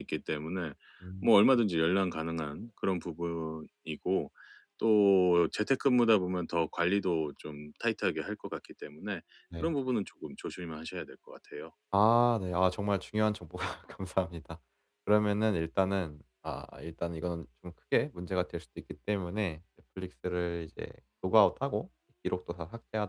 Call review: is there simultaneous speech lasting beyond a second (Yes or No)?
No